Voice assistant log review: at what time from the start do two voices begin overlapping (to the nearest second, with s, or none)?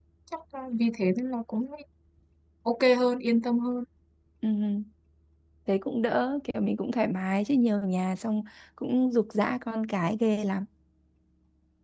none